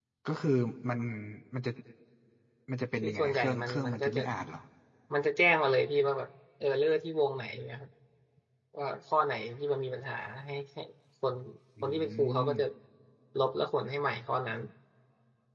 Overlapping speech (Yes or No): Yes